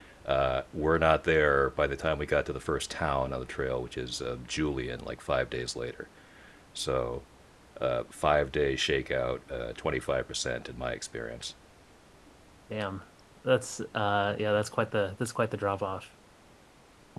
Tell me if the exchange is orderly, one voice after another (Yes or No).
Yes